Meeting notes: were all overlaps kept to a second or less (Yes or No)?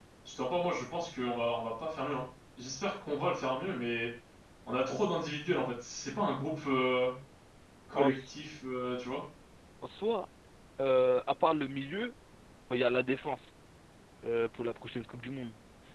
Yes